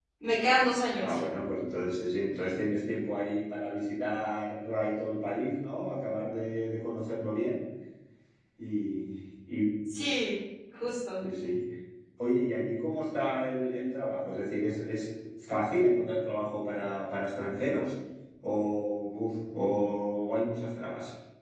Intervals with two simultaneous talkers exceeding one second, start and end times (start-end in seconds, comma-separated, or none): none